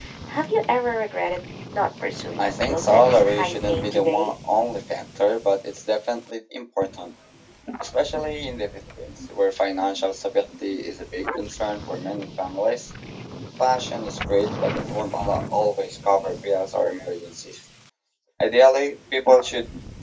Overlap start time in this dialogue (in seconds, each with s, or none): 2.4 s